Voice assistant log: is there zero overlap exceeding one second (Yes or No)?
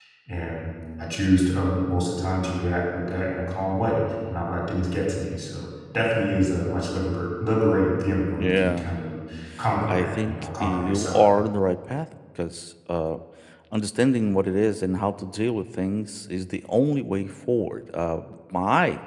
No